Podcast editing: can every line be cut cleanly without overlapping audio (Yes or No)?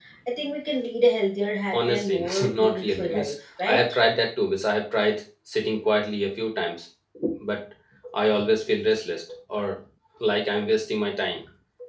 No